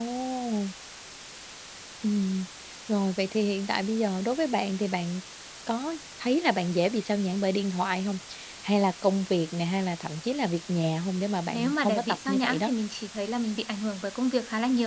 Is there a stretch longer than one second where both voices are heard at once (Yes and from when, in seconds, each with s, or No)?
Yes, from 11.5 s